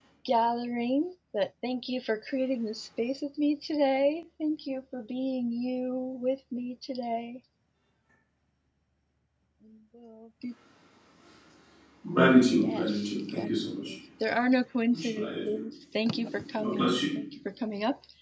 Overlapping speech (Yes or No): Yes